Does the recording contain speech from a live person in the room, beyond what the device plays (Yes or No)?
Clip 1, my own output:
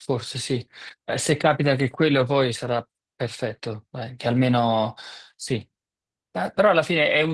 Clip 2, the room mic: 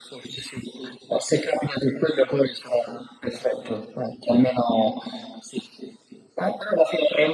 No